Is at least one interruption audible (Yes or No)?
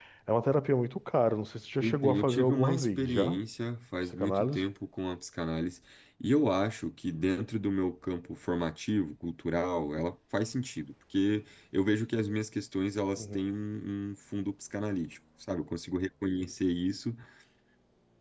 Yes